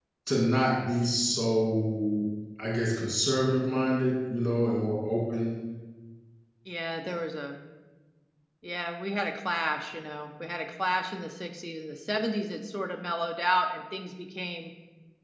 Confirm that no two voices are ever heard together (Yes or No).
Yes